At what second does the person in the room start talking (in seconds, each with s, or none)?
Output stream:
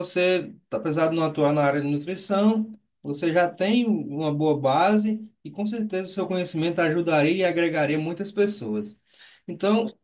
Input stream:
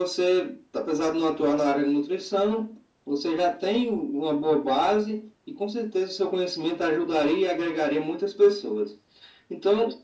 none